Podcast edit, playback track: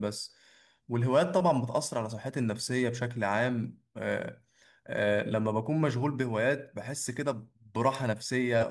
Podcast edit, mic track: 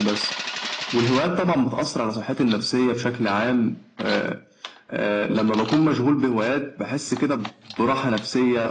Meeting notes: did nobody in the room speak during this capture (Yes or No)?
Yes